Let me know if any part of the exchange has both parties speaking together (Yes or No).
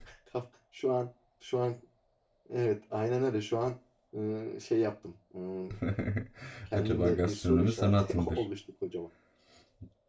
Yes